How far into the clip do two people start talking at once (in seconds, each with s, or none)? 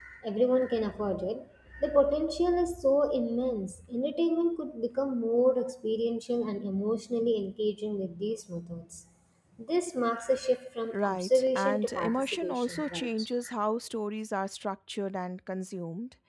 10.9 s